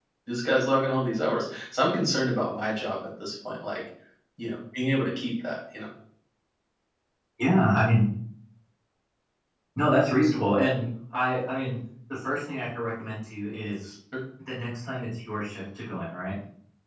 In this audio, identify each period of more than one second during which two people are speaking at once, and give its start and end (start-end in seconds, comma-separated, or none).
none